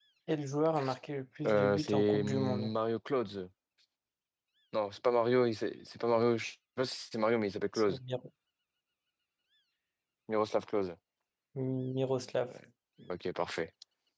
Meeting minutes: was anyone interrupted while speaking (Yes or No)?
Yes